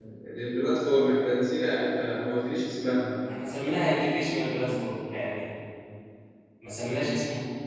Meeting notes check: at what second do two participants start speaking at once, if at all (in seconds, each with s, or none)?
none